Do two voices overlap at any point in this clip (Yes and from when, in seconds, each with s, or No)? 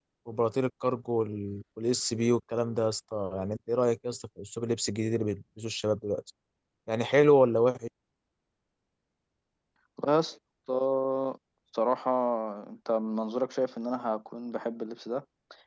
No